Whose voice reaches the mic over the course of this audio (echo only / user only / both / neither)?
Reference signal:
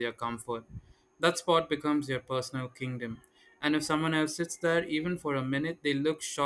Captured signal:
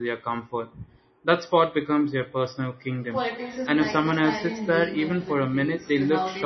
both